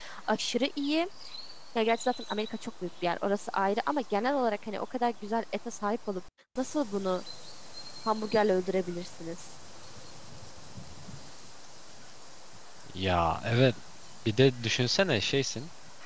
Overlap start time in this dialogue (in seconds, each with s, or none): none